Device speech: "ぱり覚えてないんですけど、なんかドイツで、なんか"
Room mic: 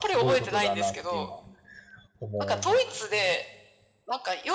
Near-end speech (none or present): present